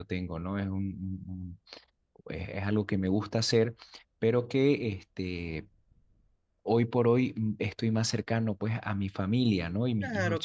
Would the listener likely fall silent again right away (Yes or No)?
Yes